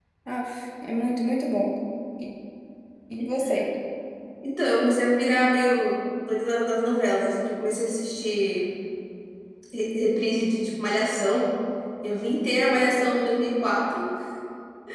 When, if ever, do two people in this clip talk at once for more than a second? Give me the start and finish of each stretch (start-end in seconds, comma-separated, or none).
none